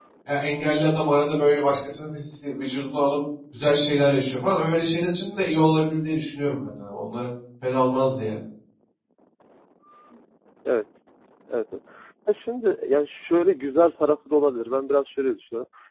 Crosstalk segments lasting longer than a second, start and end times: none

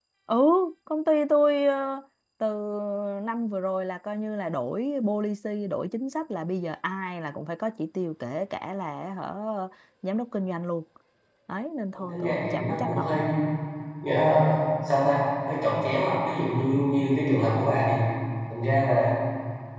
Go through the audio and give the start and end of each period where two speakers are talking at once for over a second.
11.9-13.2

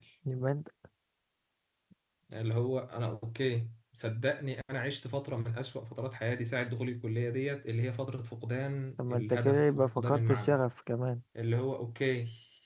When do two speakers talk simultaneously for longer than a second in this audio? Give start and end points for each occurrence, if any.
9.1-10.6

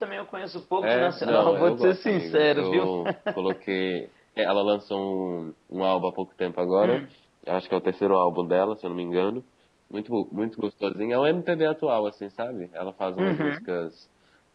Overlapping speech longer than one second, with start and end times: 0.8-2.9

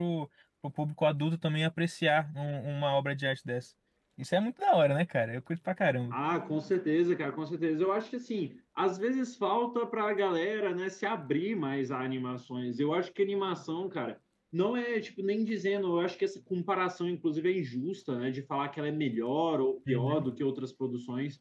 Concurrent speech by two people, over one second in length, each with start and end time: none

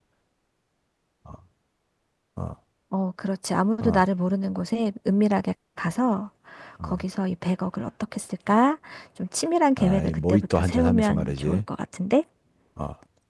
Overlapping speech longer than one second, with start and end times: 9.8-11.6

